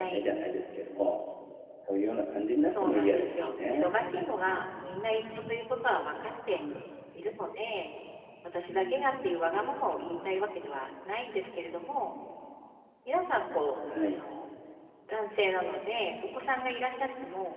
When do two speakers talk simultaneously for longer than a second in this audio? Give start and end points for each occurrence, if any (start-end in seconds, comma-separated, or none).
2.7-4.0